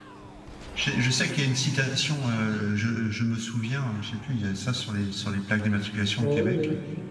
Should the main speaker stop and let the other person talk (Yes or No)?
Yes